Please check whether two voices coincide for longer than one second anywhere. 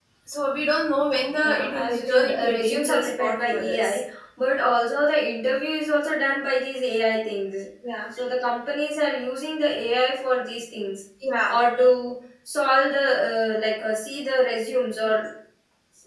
Yes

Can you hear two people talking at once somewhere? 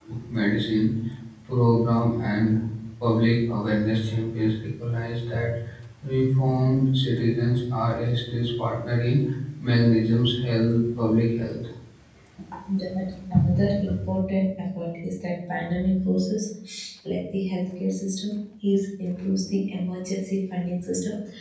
No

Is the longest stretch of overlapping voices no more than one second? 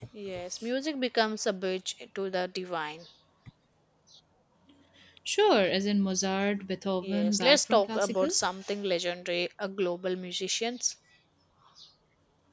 No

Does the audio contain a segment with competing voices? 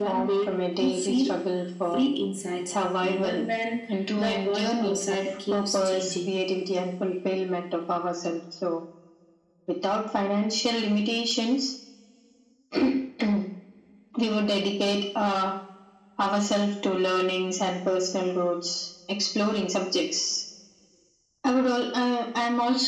Yes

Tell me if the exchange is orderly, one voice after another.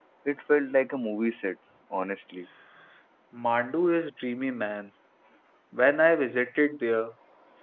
Yes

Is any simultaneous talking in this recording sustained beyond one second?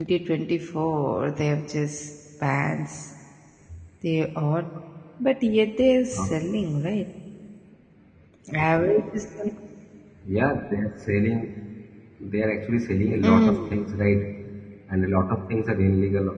No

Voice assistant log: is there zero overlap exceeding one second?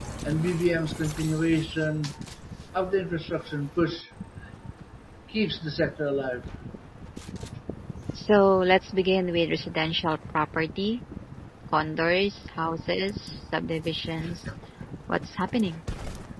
Yes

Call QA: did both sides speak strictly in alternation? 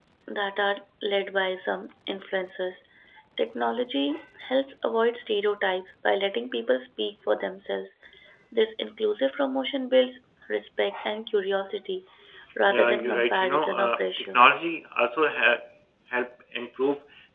No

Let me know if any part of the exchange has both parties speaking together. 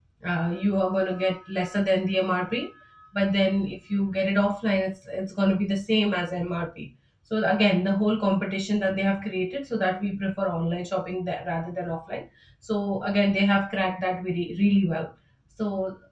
No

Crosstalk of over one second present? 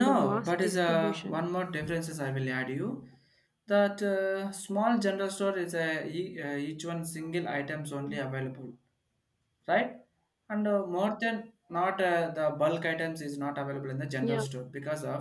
Yes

